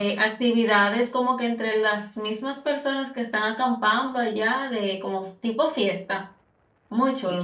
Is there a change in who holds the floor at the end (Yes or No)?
Yes